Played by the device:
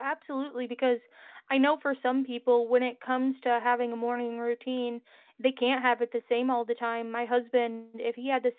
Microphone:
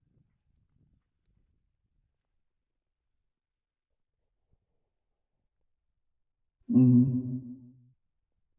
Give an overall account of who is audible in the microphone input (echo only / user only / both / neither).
user only